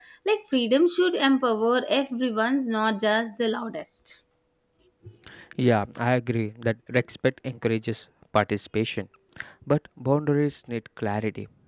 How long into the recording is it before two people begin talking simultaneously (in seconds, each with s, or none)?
none